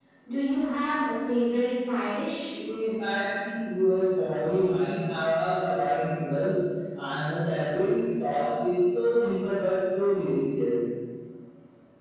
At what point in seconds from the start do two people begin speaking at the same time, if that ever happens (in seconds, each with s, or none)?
none